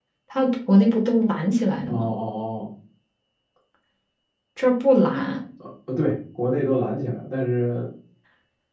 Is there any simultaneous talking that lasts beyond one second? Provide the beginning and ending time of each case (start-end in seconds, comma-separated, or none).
none